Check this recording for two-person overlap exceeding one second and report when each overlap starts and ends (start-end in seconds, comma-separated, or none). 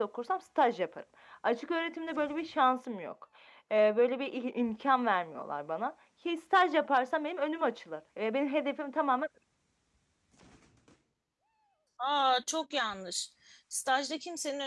none